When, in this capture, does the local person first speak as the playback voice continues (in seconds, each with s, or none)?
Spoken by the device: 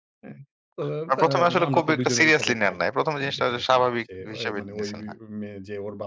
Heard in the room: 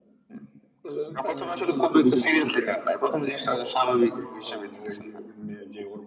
none